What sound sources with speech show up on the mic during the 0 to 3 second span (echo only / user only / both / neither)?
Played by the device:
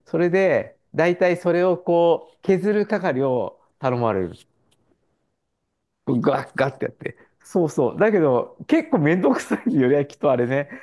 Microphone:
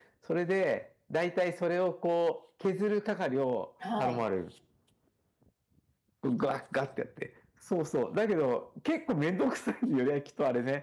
echo only